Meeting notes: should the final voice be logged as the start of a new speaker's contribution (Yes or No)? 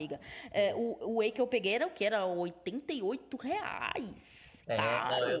Yes